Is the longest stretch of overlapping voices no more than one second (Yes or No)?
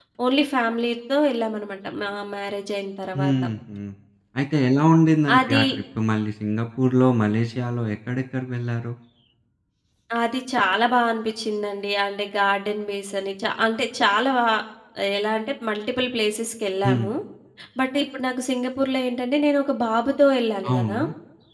Yes